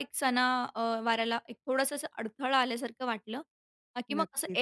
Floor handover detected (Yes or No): No